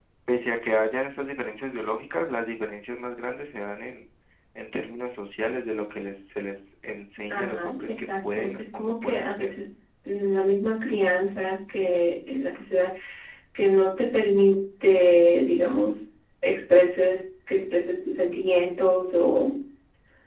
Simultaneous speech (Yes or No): Yes